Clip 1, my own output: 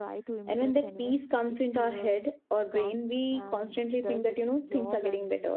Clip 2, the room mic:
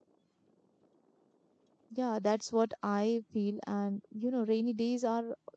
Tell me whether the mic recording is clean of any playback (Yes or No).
Yes